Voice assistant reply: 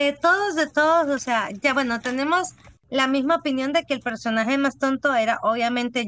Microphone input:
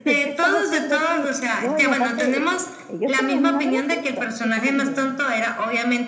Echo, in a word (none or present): present